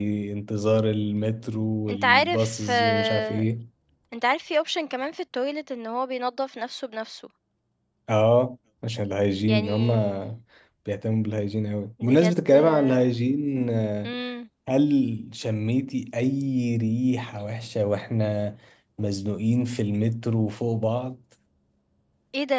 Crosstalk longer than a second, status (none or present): present